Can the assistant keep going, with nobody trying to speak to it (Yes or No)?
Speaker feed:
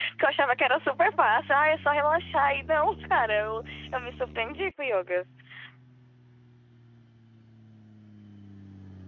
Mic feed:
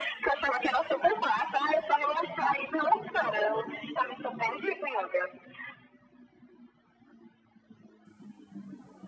Yes